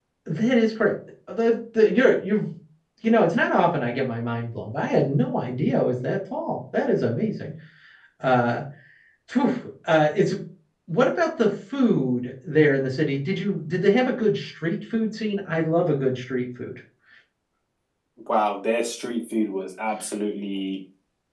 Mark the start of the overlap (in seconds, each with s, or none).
none